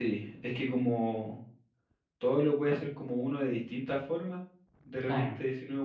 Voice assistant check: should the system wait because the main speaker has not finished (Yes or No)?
Yes